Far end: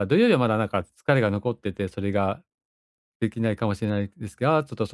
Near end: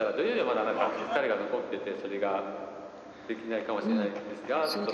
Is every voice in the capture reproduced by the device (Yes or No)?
No